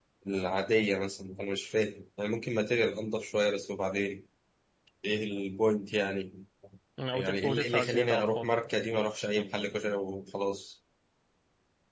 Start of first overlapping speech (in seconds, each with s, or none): 7.1 s